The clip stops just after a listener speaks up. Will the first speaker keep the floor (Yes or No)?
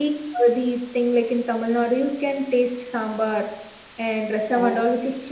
Yes